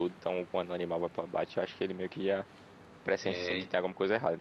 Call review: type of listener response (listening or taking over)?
listening